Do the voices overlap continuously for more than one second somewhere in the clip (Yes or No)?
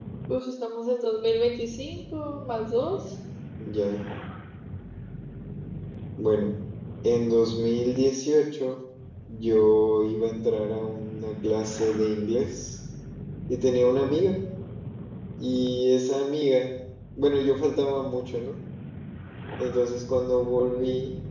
No